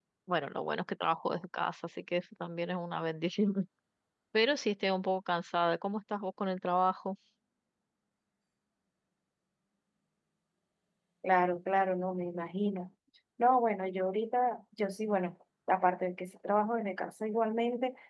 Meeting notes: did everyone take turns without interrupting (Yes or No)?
Yes